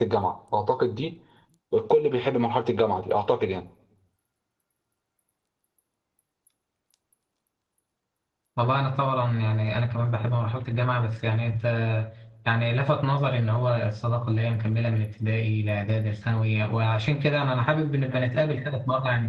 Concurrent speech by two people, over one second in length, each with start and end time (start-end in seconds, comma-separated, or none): none